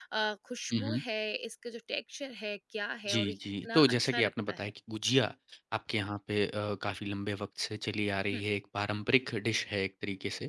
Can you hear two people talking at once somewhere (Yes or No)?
Yes